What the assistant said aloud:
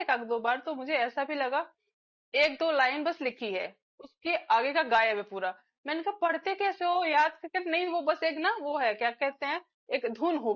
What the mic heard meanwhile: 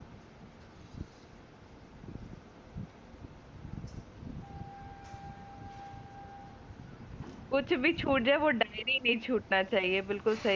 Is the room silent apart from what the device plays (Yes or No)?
No